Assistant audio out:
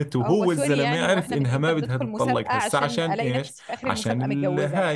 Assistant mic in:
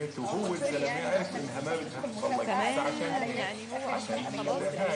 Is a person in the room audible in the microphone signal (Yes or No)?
Yes